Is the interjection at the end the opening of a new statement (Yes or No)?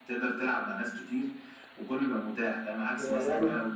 No